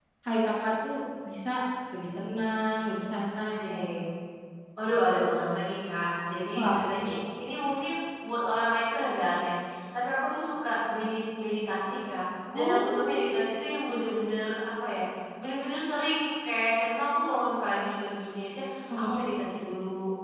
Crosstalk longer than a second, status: present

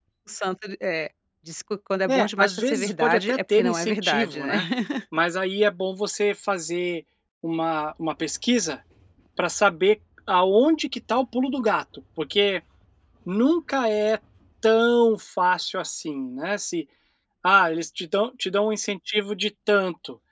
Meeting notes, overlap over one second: present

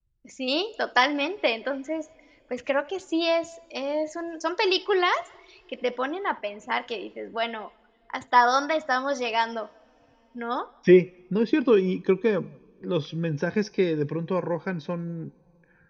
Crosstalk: none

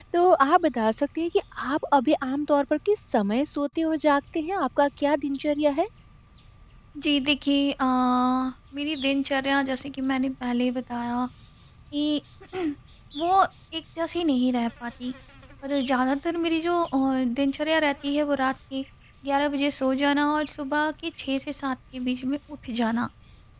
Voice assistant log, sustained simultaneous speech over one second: none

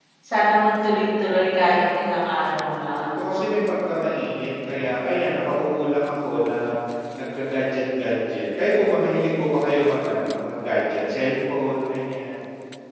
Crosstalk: none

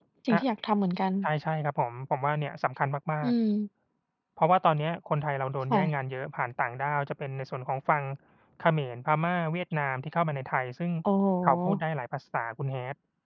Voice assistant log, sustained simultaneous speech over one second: none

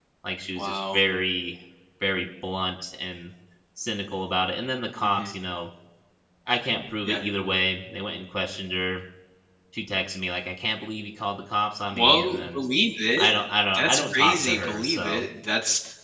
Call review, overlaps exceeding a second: present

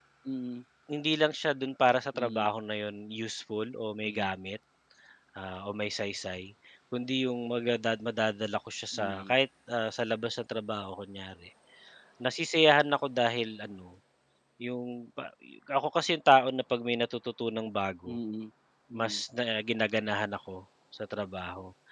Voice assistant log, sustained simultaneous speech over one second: none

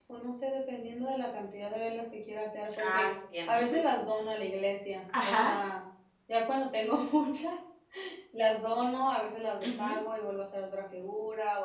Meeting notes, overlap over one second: none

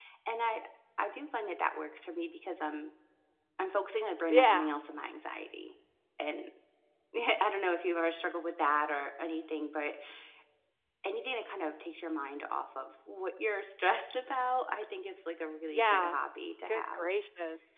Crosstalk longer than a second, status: none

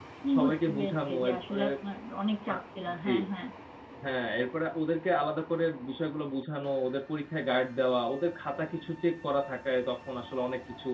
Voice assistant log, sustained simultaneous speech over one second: present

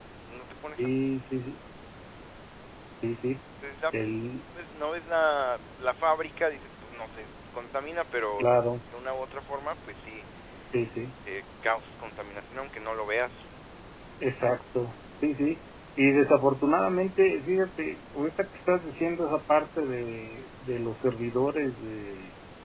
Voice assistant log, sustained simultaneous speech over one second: none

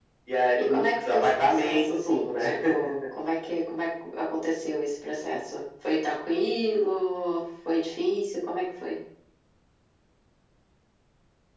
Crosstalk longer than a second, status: present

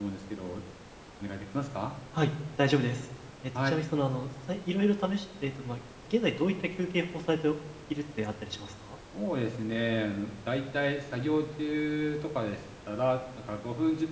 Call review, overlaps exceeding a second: none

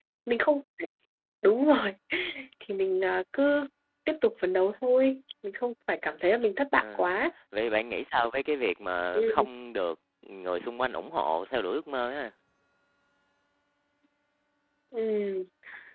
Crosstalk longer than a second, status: none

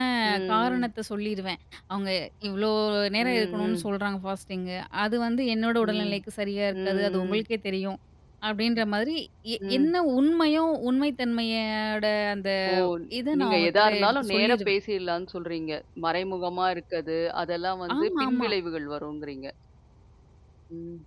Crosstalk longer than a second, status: present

